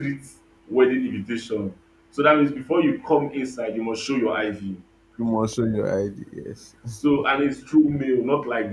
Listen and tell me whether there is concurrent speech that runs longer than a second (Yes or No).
No